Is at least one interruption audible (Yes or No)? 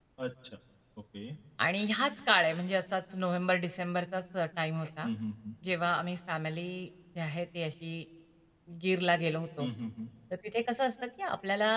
No